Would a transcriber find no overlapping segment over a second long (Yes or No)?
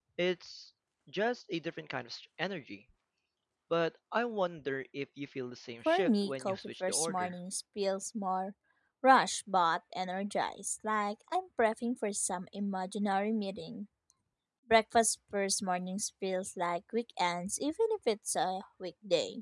No